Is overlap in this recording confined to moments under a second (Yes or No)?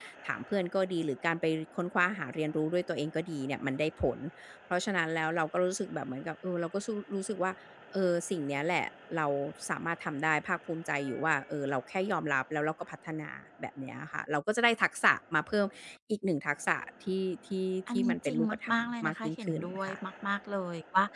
No